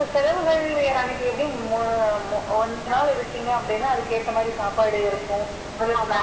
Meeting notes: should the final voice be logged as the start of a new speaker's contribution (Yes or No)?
No